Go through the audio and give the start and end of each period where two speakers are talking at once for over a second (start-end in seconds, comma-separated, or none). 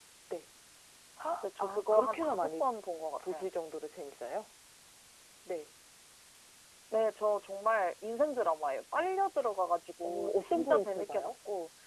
1.3-2.6, 10.0-11.3